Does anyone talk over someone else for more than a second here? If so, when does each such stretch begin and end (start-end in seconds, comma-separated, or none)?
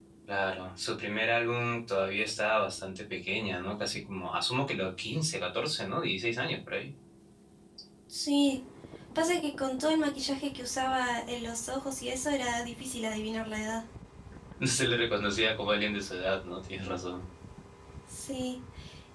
none